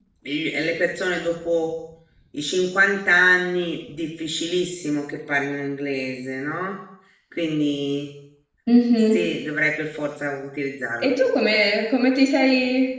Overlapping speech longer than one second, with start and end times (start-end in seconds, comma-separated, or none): none